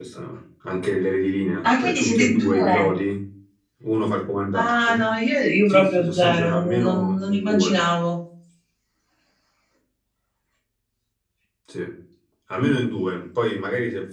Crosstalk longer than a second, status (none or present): present